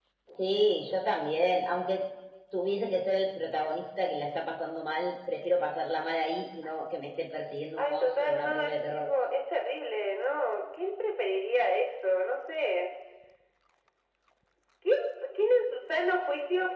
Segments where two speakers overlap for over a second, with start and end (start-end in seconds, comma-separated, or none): 7.8-9.1